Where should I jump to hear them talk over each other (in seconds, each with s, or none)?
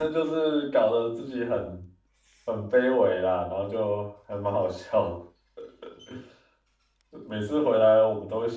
none